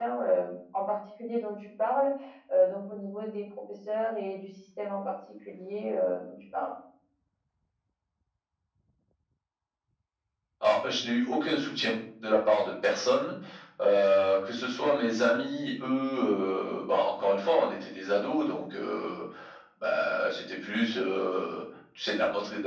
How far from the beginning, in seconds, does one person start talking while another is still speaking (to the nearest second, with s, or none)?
none